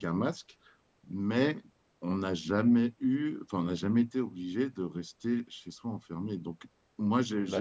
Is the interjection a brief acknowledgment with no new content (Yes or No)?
Yes